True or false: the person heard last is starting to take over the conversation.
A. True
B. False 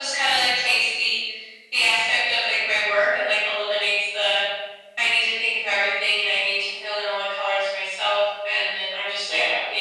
B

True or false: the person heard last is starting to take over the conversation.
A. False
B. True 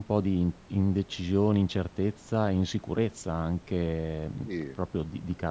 A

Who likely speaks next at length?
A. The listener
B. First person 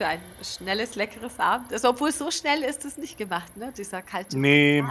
A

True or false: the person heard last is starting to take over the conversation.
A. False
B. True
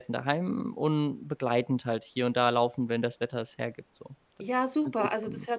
B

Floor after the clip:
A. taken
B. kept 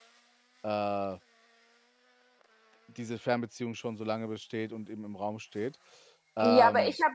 A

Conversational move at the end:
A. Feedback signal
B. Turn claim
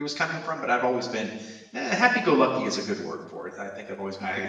B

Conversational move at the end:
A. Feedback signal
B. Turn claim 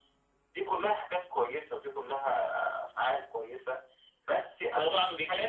B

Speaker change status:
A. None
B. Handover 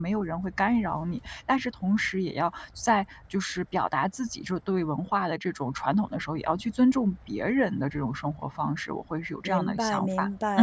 B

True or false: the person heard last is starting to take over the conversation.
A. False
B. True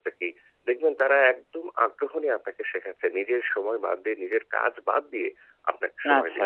A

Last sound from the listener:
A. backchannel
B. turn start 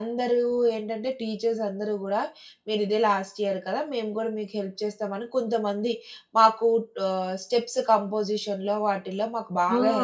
B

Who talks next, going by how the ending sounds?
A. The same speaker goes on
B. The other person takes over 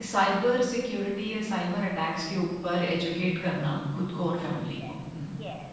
B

